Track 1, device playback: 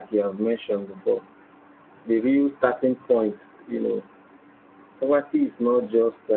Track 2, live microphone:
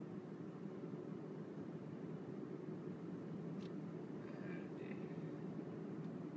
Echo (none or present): none